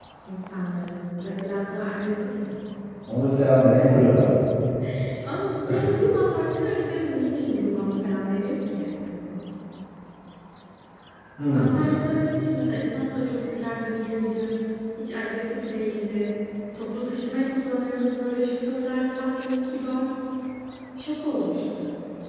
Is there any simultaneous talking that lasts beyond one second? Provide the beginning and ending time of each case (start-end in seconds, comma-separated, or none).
none